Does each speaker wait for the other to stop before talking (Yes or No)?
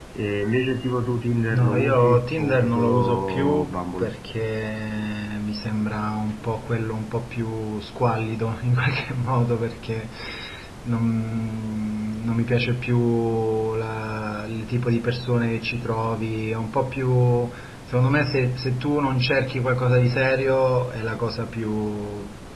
No